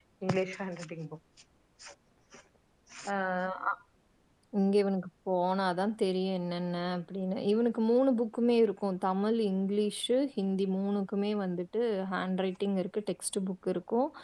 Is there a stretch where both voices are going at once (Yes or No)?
No